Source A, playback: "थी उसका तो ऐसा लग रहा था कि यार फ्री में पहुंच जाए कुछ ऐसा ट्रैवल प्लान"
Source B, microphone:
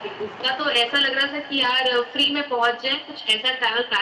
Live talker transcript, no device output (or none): none